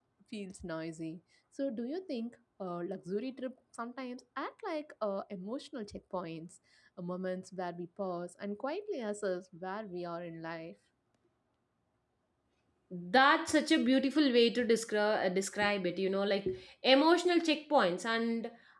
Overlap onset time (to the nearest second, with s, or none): none